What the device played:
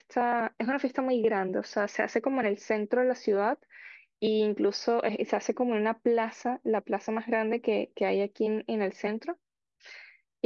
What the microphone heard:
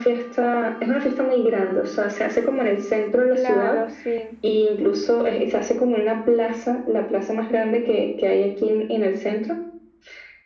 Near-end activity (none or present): present